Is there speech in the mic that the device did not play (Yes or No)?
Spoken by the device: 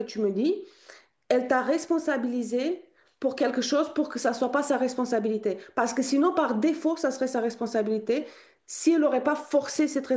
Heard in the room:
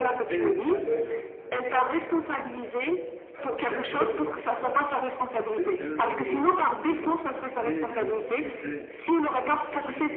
Yes